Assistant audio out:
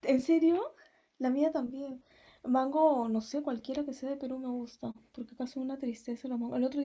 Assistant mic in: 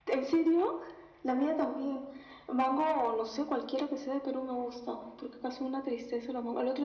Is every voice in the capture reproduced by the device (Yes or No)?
Yes